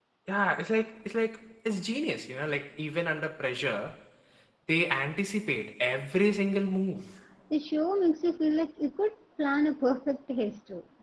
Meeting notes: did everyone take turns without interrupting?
Yes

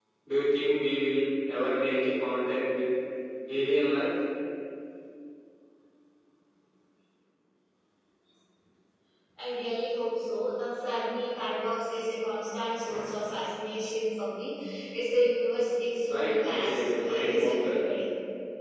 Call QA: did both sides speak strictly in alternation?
No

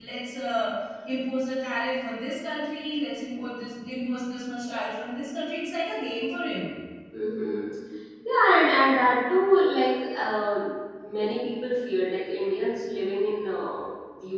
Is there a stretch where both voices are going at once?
No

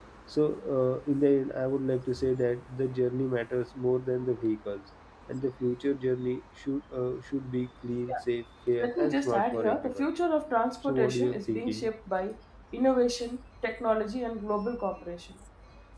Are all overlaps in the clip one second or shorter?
No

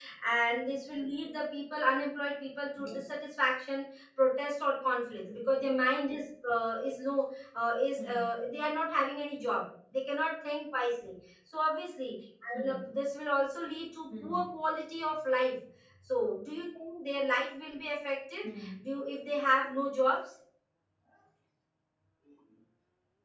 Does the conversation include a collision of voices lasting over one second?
No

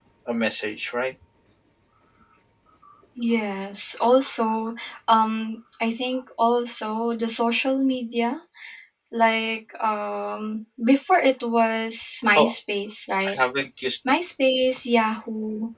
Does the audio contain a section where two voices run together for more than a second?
No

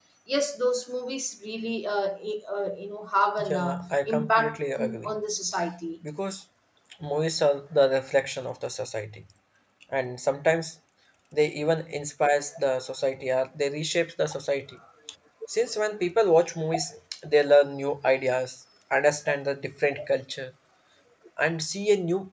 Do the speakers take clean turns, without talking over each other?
No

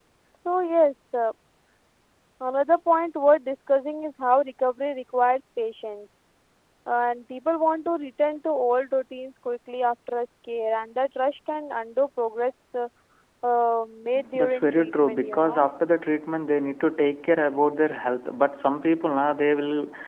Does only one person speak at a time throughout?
No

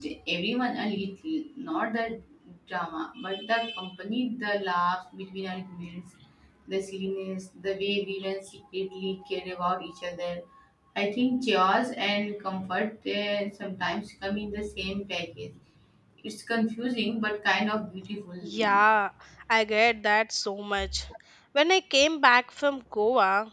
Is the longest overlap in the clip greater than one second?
No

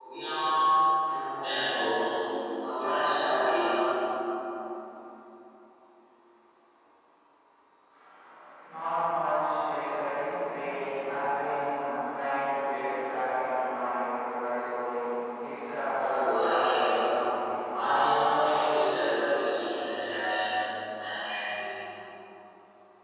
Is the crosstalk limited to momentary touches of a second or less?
No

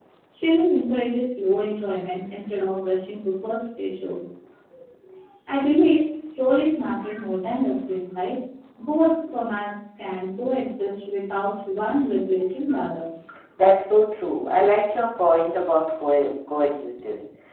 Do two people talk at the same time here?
No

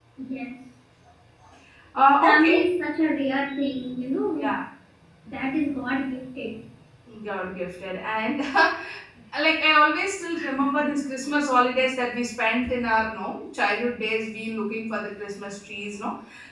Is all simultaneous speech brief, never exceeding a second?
Yes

